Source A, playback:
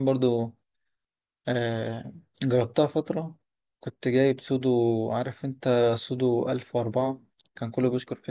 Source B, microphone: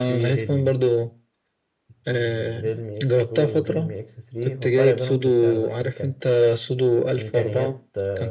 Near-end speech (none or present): present